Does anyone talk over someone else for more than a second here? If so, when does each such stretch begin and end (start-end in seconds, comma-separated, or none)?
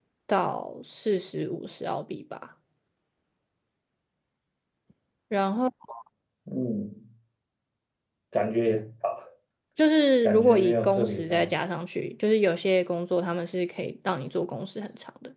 10.2-11.5